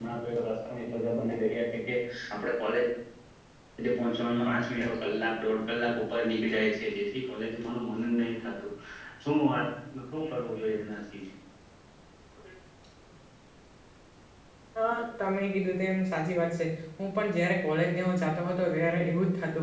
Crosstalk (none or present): none